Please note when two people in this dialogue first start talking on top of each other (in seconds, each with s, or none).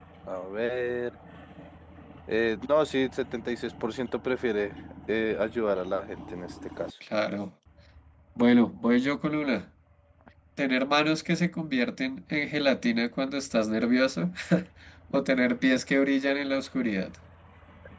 none